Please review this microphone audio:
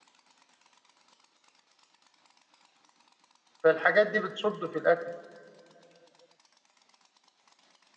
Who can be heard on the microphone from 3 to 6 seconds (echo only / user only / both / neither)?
user only